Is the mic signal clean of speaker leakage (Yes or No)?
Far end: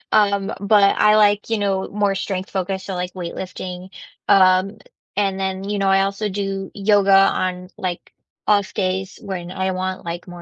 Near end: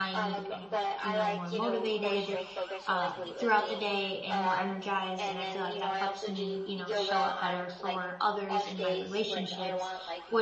No